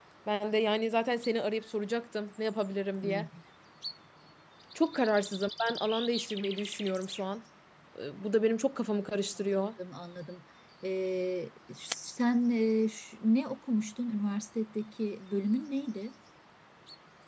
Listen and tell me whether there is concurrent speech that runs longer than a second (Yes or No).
No